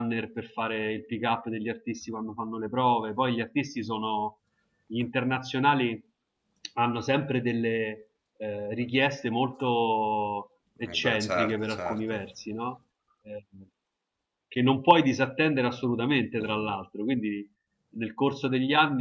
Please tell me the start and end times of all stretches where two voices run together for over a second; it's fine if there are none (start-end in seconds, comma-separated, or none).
10.8-12.2